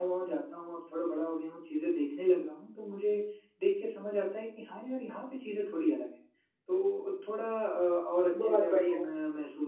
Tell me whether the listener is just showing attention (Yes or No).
Yes